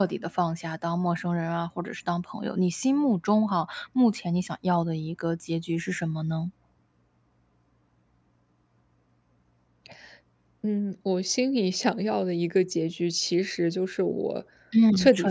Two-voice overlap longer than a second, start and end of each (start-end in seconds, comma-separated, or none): none